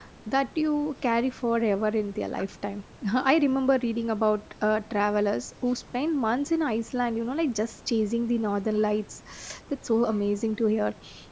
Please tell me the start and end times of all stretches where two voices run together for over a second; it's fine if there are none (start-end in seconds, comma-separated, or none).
none